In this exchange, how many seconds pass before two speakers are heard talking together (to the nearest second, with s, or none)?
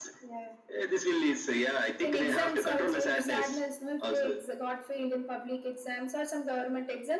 2 s